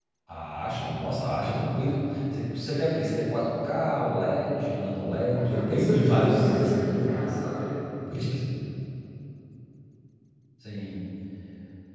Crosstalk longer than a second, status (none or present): present